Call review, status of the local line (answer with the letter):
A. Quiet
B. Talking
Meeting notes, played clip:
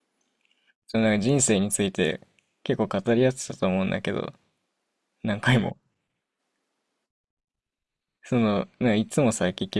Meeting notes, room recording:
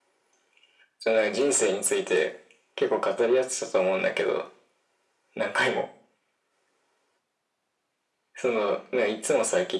A